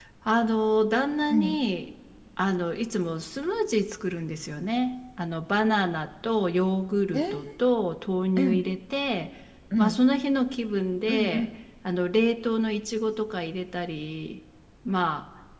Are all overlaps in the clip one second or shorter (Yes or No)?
Yes